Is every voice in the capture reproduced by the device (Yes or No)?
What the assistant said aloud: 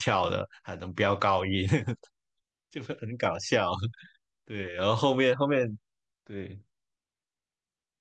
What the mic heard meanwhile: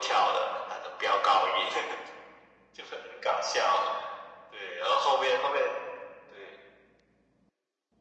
Yes